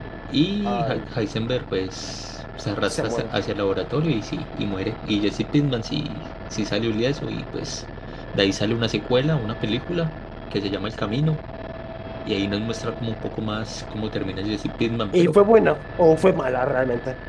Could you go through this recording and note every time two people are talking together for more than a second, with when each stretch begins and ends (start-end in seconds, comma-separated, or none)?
none